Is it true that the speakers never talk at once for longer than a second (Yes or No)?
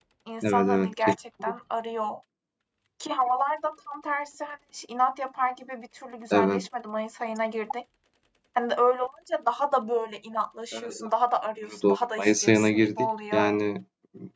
No